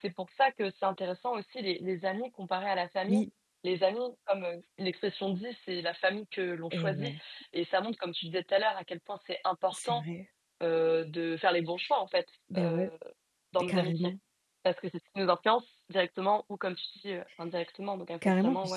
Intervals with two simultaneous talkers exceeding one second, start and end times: none

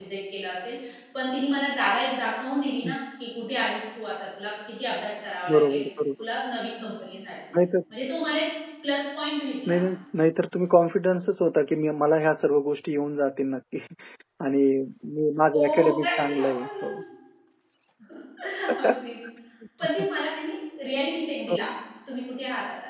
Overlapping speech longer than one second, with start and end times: 15.5-16.9

